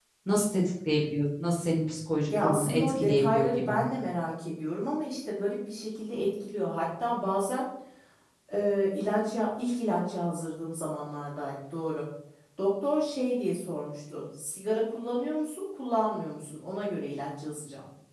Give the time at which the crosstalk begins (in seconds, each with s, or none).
2.3 s